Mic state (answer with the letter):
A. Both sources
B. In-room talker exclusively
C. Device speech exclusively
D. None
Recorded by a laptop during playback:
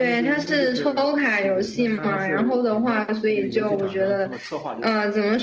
A